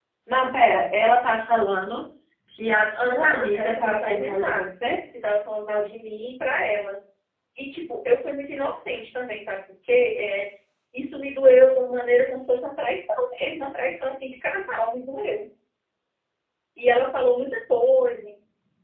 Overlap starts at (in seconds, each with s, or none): 2.9 s